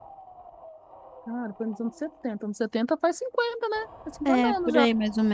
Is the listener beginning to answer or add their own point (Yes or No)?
Yes